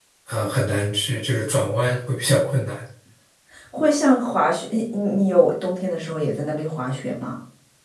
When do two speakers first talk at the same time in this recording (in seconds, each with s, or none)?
none